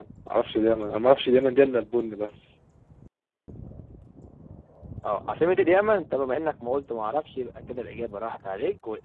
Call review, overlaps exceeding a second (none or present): none